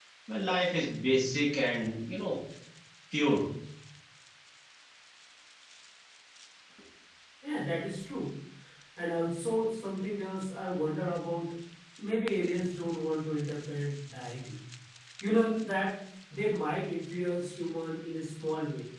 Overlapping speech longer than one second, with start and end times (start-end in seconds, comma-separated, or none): none